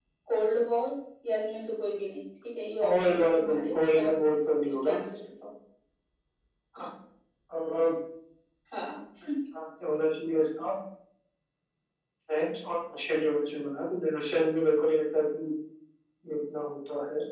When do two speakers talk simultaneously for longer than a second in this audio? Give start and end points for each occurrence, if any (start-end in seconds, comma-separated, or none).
2.8-4.2